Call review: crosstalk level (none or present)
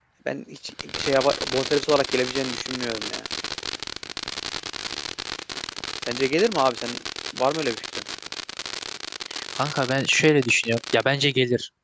none